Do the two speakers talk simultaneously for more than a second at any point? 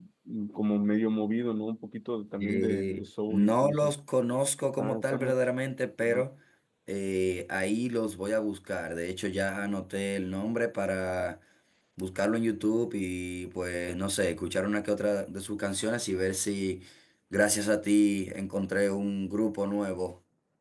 Yes, from 2.4 s

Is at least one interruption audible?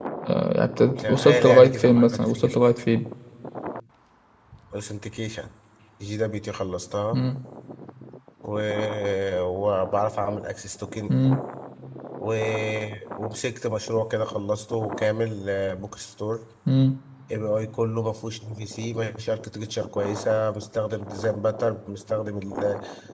Yes, from 1.0 s

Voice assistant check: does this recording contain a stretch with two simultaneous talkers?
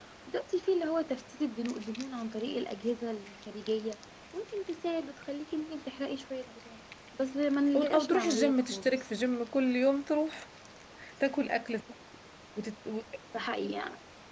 Yes, from 7.7 s

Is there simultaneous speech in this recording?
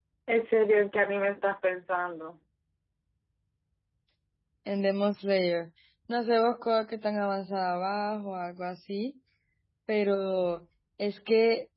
No

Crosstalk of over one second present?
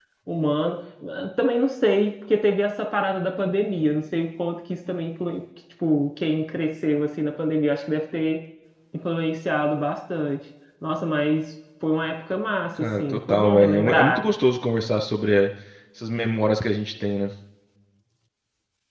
Yes, from 13.0 s

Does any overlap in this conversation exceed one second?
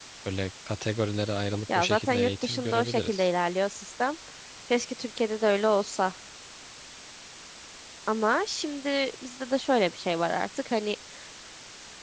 Yes, from 1.7 s

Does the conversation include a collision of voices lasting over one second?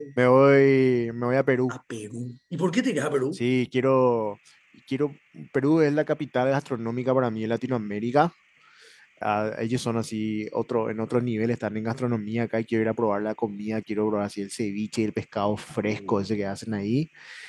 No

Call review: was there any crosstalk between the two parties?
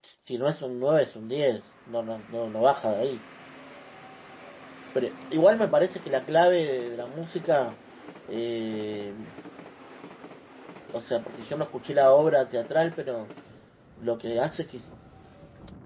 No

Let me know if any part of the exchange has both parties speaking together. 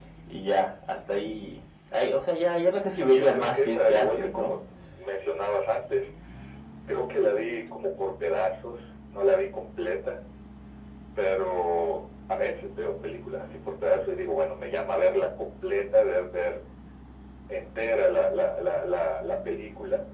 Yes, from 3.1 s

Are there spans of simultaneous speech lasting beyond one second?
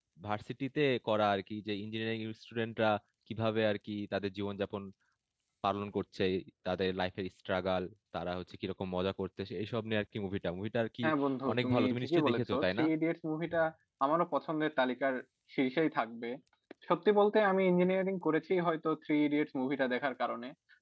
Yes, from 11.5 s

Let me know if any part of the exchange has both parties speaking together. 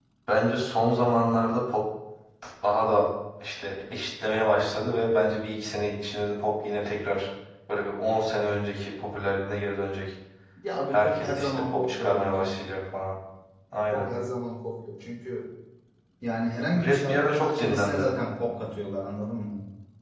Yes, from 10.9 s

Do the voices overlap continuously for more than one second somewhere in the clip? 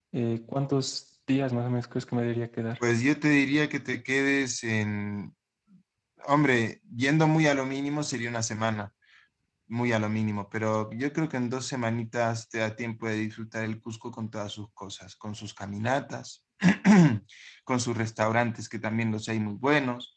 No

